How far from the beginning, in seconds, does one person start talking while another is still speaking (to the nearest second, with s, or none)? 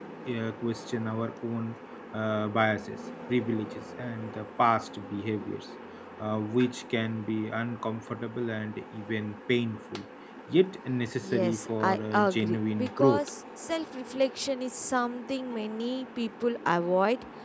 11 s